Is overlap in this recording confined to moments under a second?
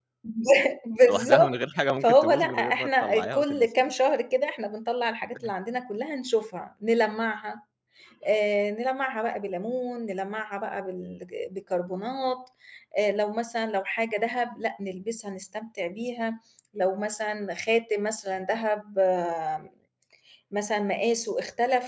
No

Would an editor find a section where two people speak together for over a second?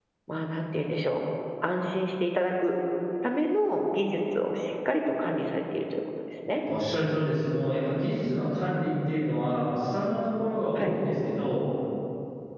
No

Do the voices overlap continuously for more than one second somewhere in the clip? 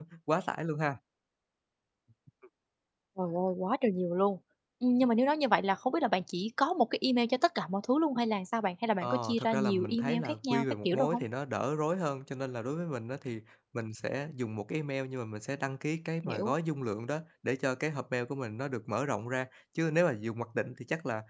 Yes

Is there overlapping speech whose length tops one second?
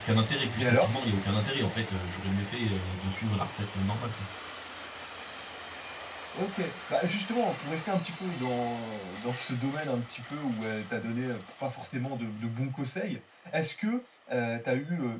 No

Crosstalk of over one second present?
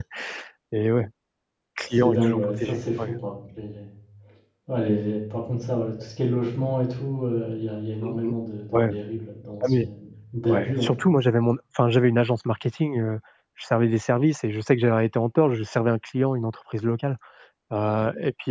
Yes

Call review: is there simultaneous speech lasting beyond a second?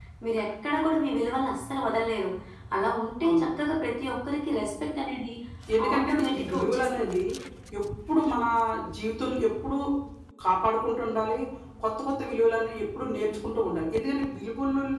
Yes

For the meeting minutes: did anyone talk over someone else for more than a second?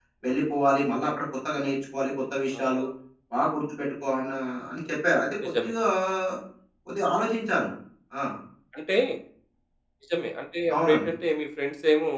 No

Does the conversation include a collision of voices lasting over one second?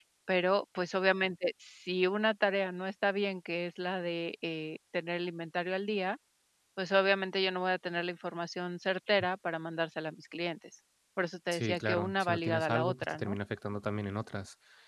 Yes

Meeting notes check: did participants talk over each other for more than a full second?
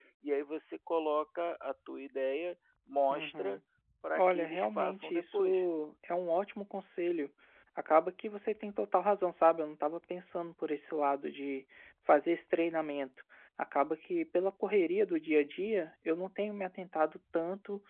Yes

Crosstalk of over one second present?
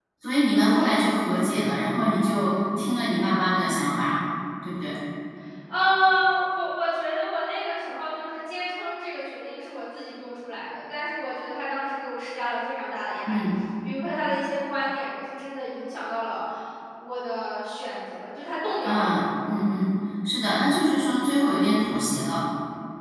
No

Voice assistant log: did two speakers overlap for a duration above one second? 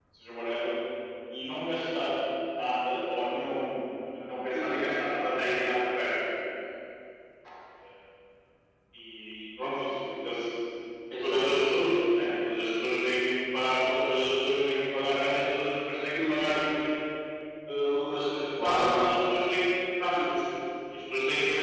No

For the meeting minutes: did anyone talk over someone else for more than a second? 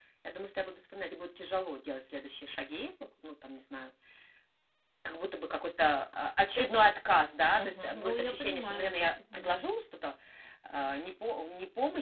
Yes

